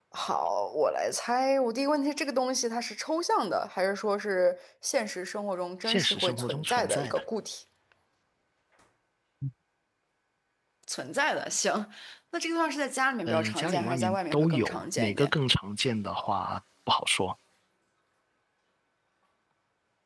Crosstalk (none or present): present